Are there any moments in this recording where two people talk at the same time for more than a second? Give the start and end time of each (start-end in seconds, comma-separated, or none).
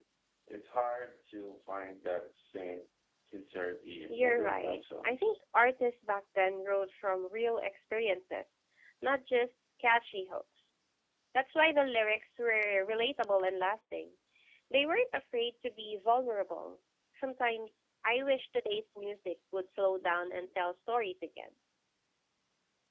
4.1-5.4